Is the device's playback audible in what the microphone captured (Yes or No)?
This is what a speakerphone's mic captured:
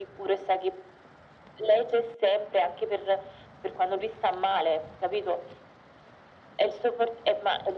Yes